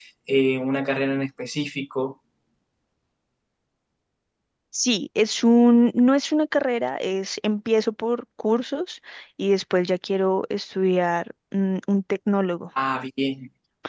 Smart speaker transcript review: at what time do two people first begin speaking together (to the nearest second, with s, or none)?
none